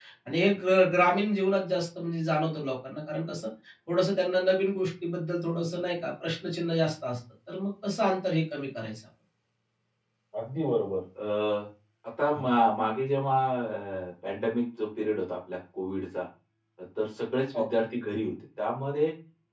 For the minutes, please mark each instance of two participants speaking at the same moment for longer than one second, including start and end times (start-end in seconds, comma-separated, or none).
none